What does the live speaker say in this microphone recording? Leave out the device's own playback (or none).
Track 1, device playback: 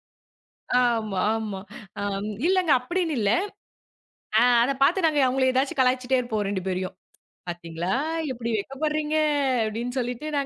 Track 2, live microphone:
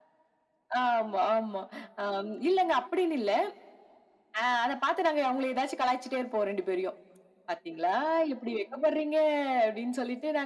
none